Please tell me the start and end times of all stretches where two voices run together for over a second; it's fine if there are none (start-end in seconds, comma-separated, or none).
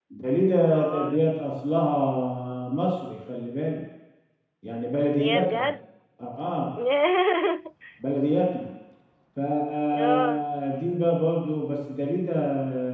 none